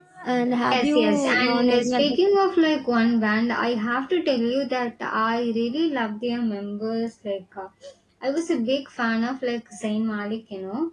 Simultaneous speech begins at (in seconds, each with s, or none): 0.7 s